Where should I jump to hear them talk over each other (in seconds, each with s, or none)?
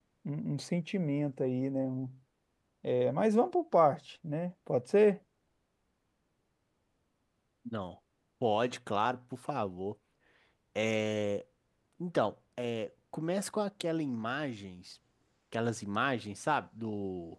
none